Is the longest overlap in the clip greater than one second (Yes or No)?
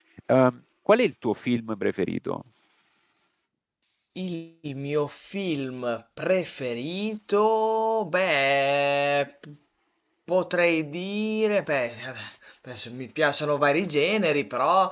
No